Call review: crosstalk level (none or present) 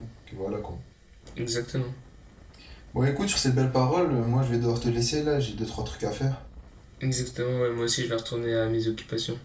none